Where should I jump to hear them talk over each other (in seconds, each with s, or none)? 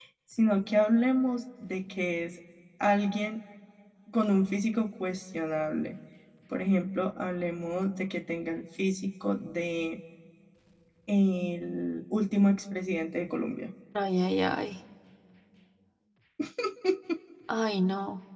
none